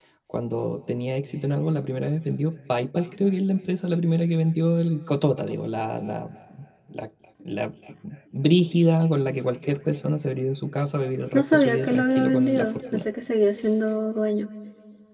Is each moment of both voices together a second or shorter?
No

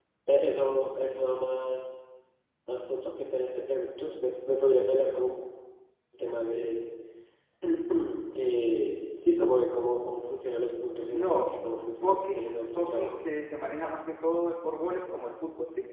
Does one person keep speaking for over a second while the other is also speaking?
Yes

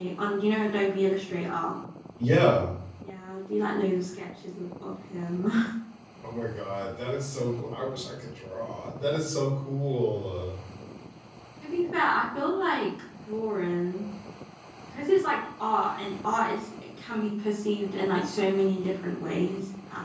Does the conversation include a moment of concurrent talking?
No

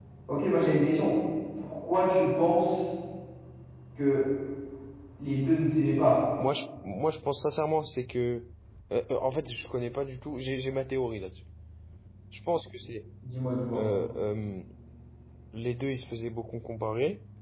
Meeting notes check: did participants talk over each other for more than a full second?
No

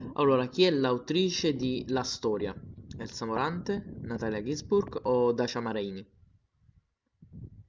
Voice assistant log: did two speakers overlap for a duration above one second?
No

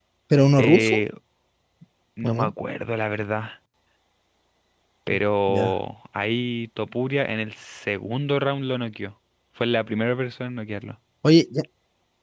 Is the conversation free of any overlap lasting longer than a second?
Yes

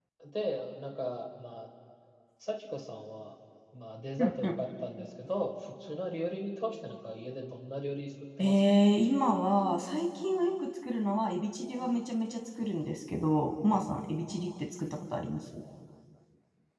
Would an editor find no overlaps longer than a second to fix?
Yes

